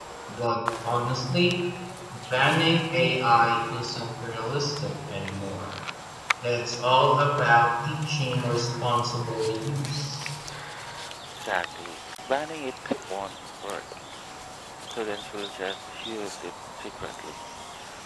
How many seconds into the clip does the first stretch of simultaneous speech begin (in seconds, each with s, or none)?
none